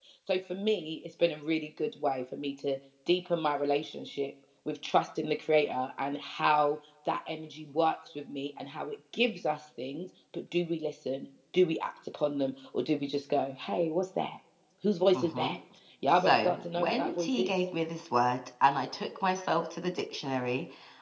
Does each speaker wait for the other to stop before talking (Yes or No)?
No